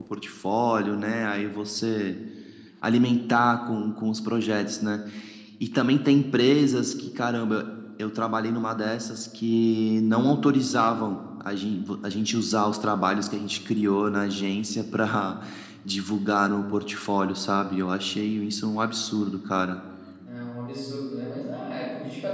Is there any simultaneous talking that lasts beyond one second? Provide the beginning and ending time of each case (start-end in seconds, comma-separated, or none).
none